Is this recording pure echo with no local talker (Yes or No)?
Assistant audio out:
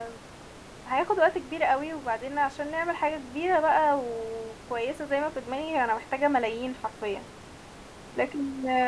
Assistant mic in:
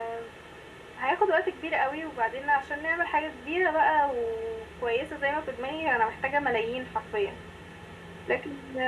Yes